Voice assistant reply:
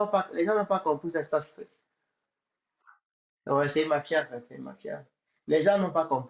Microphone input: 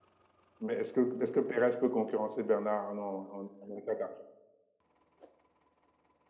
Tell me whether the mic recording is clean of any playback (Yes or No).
Yes